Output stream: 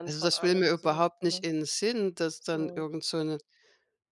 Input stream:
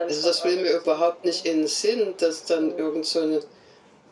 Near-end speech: none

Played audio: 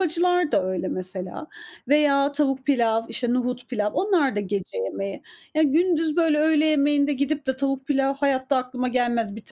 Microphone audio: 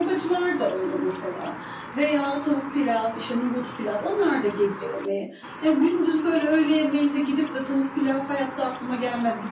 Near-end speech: none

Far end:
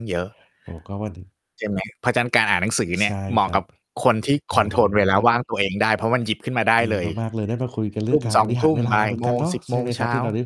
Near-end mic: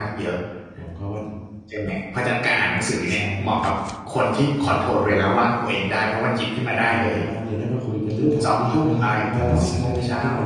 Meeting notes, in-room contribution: present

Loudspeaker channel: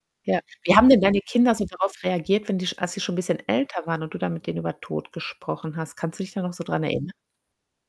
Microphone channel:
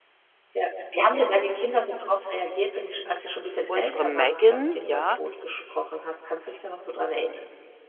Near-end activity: present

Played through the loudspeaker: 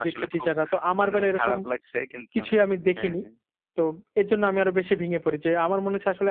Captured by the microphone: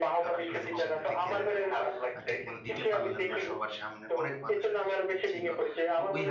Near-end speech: present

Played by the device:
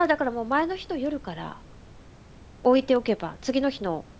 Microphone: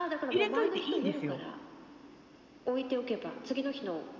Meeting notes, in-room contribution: present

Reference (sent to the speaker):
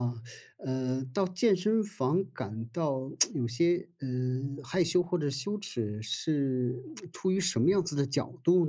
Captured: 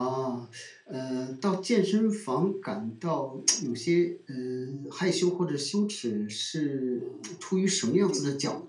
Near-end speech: present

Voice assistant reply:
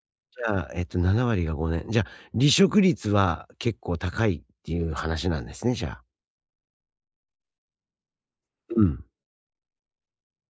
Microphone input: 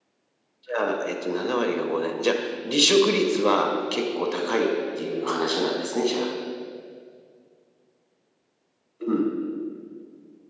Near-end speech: none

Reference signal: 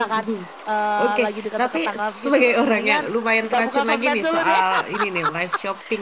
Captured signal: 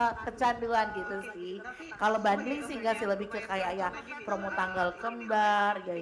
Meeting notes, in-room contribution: present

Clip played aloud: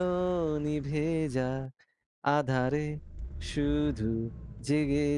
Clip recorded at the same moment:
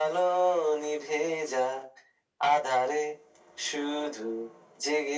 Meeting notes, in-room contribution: none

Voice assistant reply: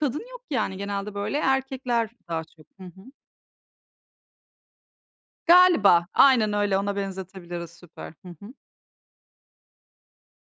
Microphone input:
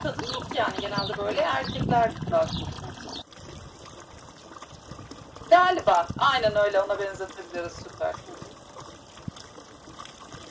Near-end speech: none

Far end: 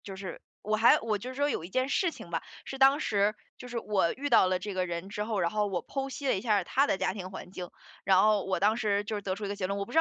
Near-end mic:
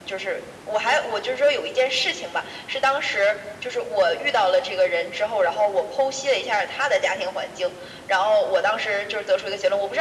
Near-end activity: none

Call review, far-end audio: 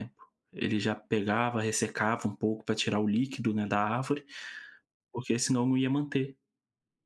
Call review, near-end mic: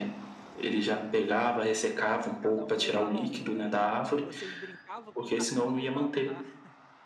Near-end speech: present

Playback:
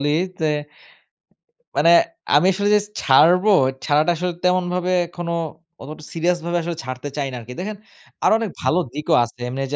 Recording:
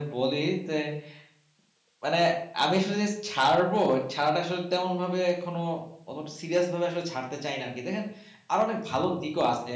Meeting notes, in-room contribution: none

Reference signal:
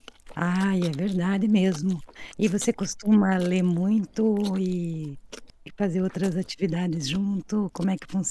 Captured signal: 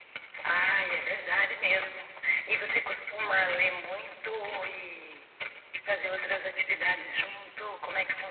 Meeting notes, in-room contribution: none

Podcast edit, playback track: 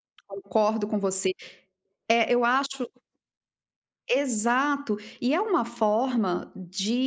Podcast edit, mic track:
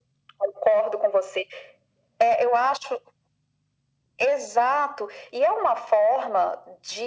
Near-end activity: none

